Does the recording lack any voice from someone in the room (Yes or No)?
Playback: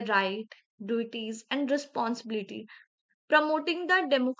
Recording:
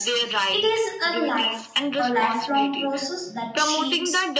No